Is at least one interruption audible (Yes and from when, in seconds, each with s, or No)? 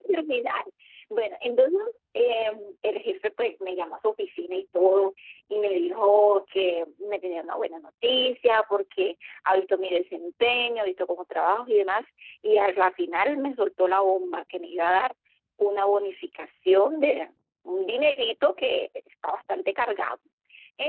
No